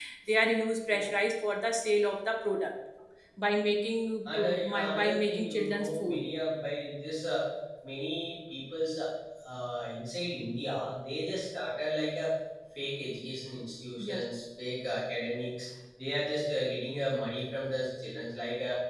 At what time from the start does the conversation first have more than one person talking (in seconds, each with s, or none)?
4.2 s